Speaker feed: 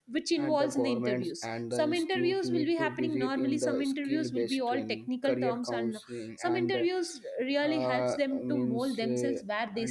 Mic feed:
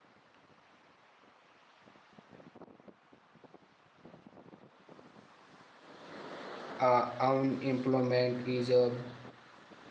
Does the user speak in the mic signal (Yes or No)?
Yes